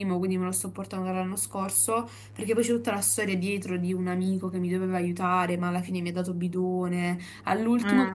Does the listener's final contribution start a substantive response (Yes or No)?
No